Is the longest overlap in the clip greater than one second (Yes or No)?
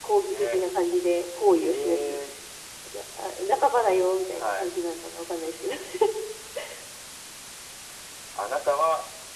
No